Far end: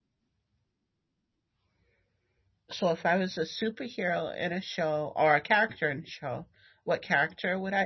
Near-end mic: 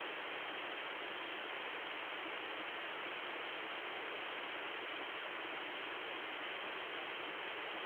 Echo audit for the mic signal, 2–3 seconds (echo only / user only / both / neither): neither